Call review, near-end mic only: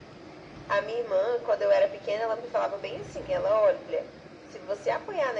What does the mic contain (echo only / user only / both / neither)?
echo only